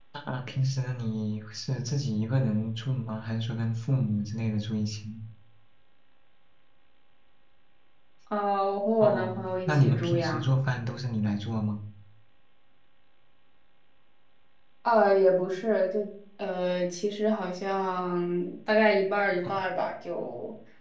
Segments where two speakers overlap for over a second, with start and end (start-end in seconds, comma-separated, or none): 9.0-10.4